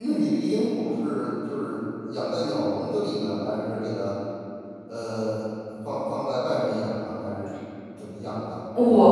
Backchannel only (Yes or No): No